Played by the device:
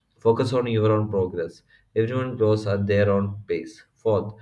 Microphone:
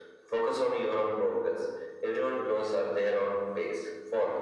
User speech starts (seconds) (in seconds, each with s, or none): none